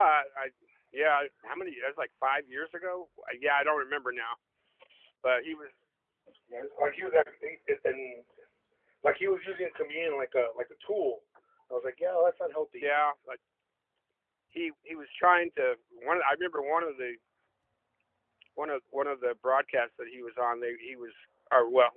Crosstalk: none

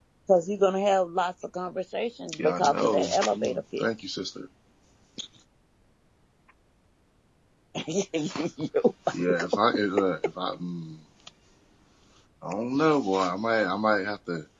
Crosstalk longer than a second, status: present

